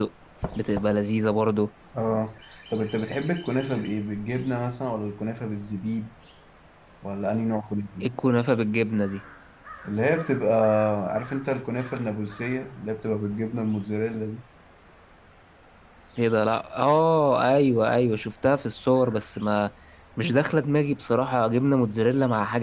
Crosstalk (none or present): none